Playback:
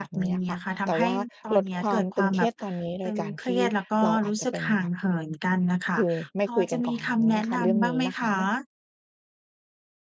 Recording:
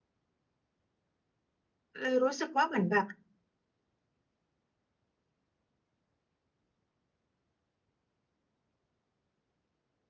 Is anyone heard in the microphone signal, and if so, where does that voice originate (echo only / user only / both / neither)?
user only